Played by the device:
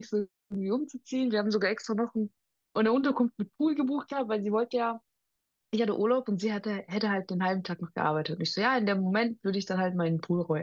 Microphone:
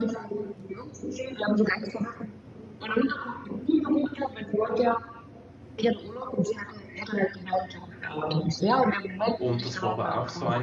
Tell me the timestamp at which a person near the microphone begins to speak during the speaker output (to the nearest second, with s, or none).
9 s